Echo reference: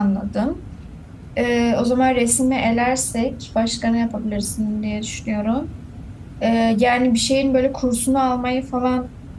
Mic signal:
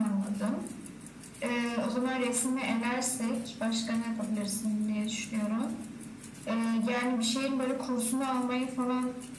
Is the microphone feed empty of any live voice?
Yes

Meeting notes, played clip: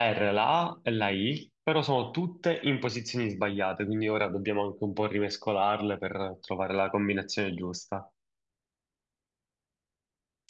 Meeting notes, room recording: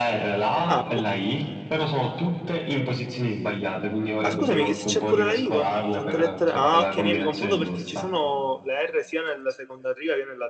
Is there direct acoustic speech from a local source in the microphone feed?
Yes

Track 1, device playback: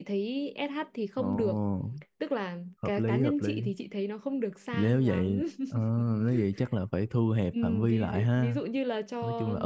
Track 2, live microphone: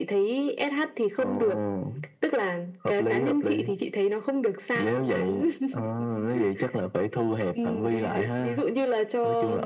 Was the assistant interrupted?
No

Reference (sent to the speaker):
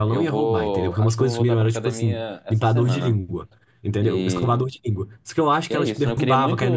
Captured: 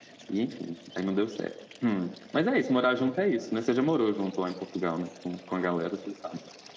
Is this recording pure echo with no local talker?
No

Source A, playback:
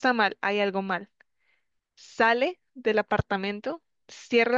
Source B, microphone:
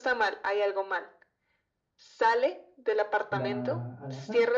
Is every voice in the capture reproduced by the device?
No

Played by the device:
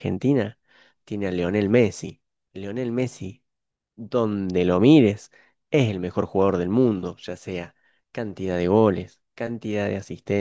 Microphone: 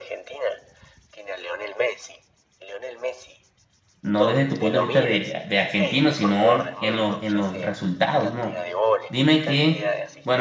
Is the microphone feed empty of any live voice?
No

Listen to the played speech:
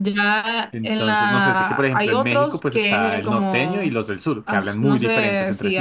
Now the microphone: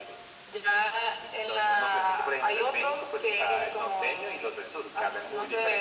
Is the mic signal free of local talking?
Yes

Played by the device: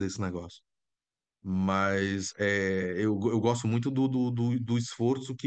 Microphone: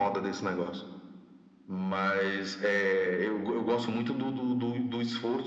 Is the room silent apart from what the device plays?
Yes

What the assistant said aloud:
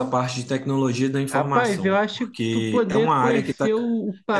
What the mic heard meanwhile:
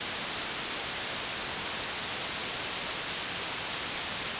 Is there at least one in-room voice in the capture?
No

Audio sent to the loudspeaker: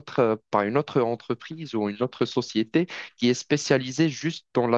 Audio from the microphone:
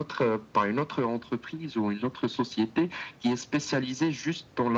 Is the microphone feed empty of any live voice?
Yes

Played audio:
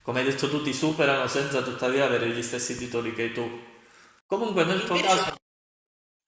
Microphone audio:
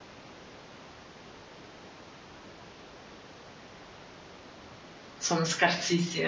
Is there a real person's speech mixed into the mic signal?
Yes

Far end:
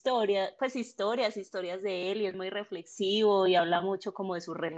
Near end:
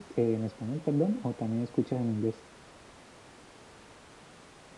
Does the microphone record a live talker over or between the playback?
Yes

